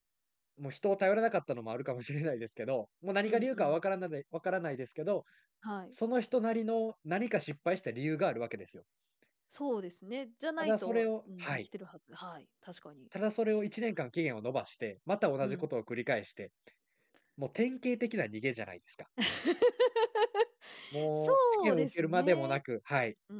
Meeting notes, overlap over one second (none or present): present